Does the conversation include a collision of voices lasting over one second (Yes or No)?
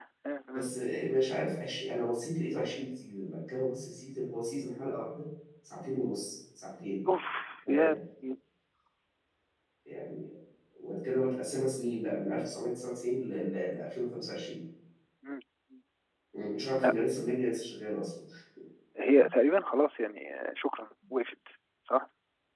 No